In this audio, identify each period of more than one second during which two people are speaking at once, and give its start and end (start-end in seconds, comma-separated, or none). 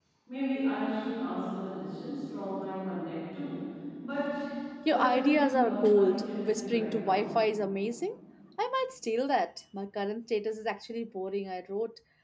4.9-7.2